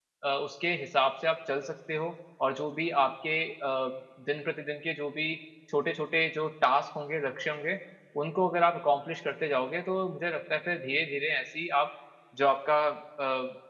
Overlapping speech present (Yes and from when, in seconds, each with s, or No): No